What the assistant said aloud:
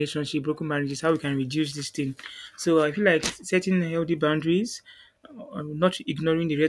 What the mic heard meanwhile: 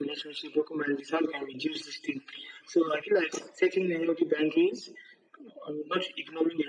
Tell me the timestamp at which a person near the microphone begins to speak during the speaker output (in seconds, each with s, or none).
none